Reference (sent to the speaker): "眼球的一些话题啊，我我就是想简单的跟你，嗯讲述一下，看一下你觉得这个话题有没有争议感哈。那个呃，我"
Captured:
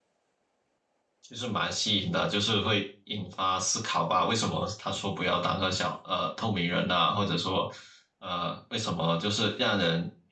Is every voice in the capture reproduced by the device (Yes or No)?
No